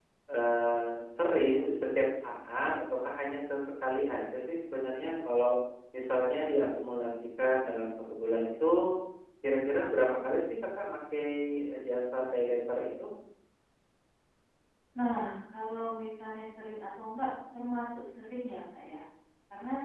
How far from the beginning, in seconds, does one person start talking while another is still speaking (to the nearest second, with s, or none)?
none